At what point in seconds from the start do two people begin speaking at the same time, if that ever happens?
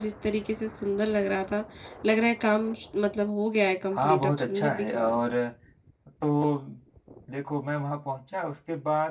4 s

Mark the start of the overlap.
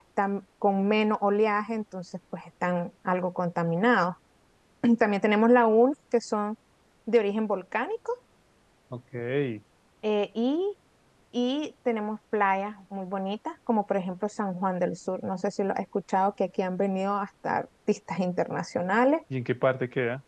none

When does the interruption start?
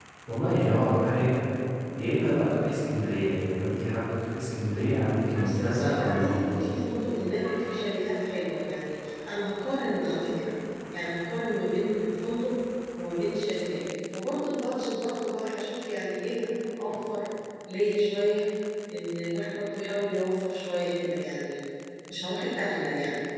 5 s

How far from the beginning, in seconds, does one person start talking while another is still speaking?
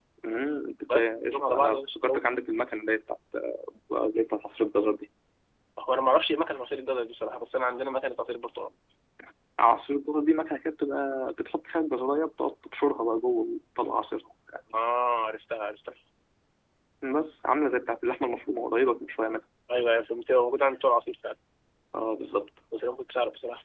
1 s

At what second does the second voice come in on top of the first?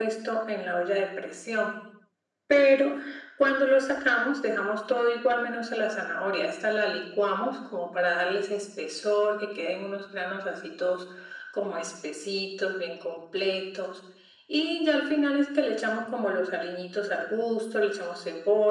none

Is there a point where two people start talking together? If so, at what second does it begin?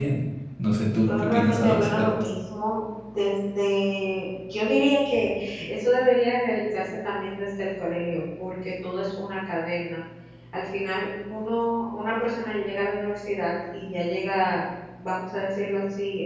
1 s

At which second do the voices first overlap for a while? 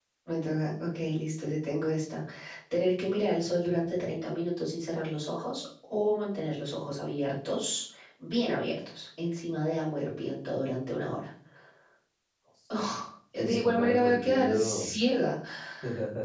13 s

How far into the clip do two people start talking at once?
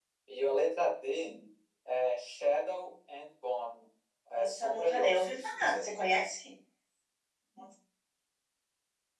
4 s

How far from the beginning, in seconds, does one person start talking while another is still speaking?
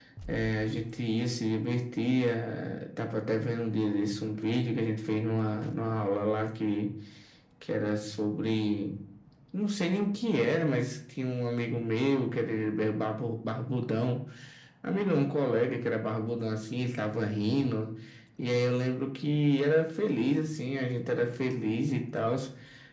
none

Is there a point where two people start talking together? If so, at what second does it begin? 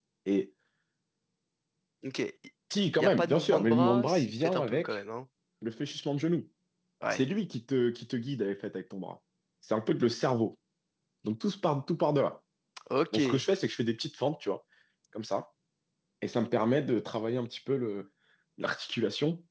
3 s

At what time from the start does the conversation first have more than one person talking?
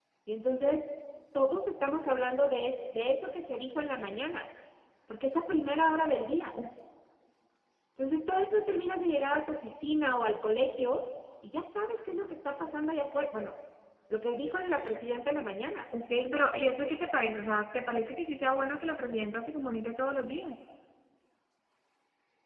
none

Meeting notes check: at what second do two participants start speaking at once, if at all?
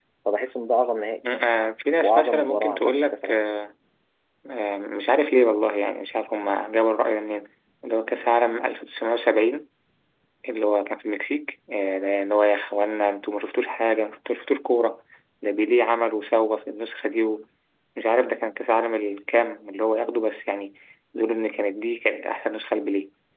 2 s

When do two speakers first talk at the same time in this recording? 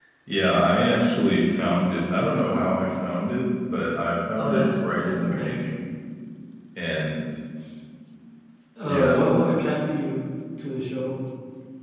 4 s

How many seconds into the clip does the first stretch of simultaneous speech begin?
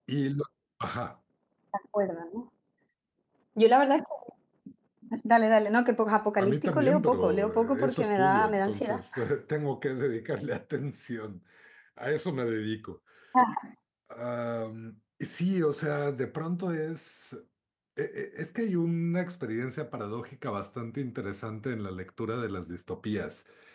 6 s

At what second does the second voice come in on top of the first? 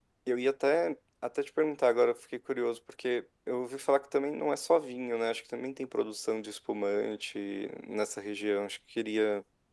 none

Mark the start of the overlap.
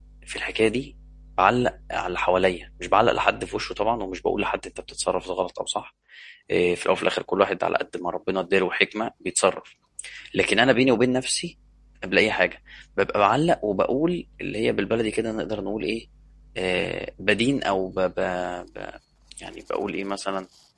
none

